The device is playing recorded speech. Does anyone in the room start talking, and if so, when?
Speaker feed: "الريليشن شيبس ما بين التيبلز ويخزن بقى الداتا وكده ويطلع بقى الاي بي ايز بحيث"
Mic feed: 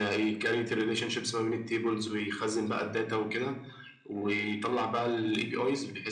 none

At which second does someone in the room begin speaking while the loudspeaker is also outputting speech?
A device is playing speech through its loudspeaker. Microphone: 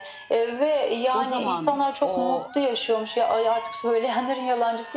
1.1 s

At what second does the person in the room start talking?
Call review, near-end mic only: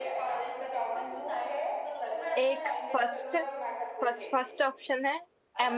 2.4 s

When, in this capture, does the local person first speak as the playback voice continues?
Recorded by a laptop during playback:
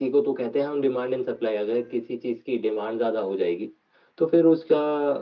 none

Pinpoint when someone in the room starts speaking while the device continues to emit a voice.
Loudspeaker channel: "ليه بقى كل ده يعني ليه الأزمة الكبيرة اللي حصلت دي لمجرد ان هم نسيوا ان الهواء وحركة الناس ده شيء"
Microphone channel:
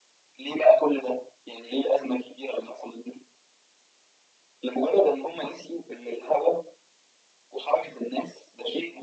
none

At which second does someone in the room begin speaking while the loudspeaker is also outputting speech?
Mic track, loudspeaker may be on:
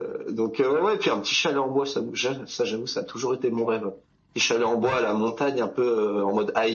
none

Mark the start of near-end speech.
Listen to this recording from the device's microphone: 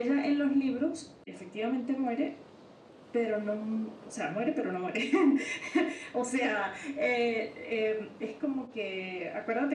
none

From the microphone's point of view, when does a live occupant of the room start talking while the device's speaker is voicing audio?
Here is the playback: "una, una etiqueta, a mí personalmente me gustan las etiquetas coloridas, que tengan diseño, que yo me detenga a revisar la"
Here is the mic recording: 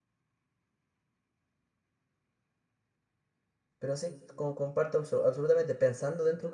3.8 s

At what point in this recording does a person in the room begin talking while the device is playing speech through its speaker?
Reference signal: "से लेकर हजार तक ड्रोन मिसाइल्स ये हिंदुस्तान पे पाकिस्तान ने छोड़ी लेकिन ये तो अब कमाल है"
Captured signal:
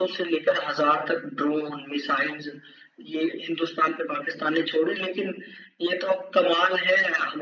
none

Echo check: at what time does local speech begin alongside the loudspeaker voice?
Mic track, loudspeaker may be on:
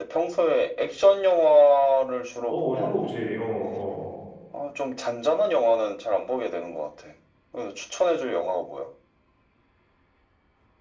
2.5 s

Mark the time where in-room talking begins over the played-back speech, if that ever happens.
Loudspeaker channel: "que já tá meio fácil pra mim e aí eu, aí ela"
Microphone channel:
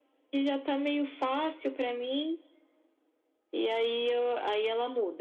none

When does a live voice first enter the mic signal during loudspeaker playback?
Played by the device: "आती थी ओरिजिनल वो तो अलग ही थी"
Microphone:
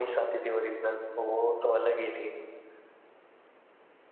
none

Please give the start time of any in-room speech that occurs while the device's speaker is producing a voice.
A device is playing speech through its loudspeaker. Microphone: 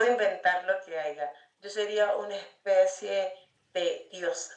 none

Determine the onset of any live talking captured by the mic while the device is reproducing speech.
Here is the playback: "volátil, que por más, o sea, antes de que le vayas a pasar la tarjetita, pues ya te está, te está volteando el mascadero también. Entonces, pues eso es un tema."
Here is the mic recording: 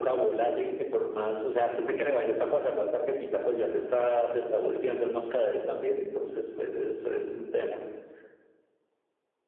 none

